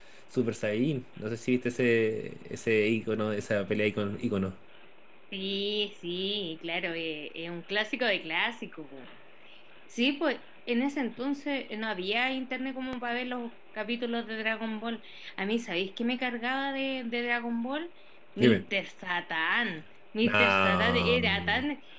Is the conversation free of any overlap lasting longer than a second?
No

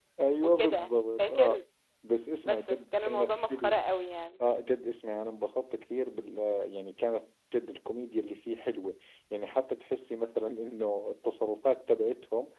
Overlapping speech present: Yes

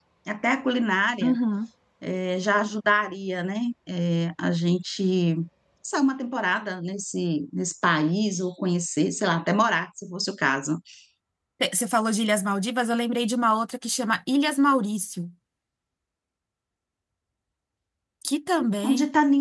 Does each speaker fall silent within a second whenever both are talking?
Yes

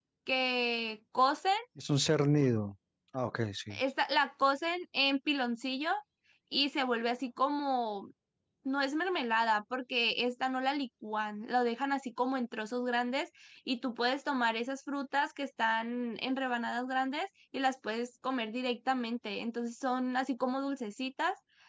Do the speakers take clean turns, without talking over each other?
Yes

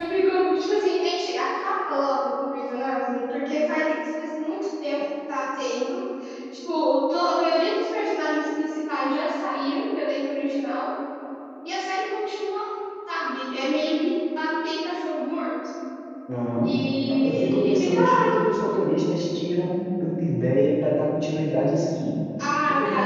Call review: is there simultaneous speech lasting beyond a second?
Yes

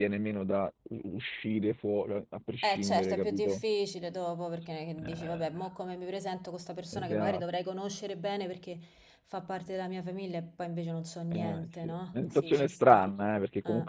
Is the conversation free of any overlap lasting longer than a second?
No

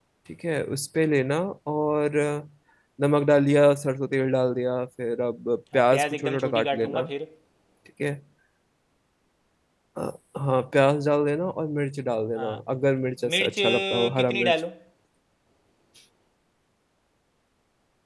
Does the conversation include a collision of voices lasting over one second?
Yes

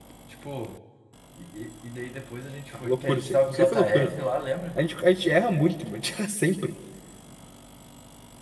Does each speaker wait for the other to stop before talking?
No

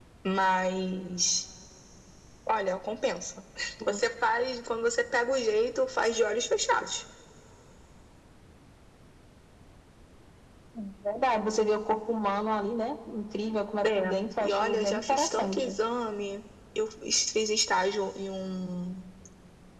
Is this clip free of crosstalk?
No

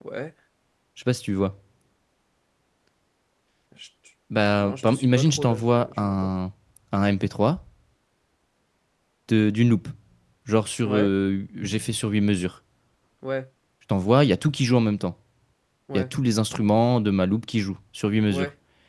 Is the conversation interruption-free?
No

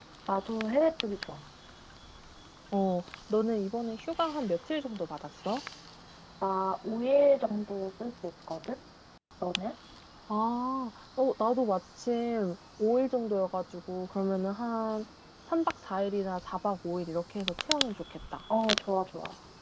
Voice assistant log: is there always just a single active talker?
Yes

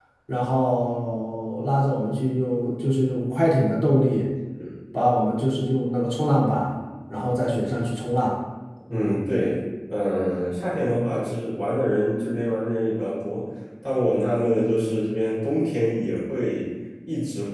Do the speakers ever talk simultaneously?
No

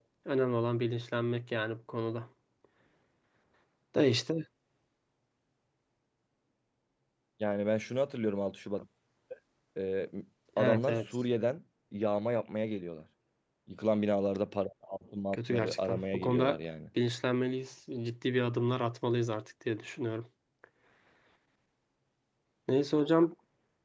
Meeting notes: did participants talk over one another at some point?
Yes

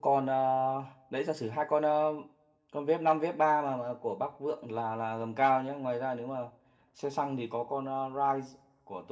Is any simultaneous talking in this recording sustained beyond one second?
No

